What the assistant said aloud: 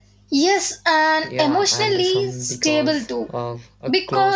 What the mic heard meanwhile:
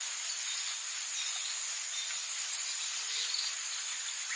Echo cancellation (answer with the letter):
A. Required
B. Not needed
B